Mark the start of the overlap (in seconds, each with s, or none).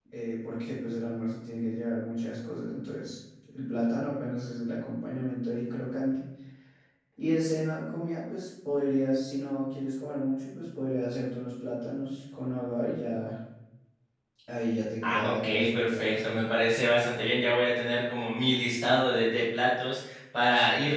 15.0 s